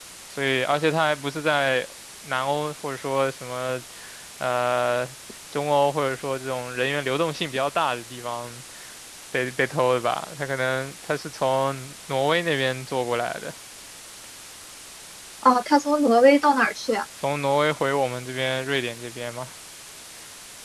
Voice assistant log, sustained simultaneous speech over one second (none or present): none